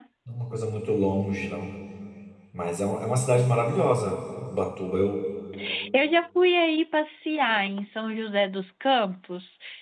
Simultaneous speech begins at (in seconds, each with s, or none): none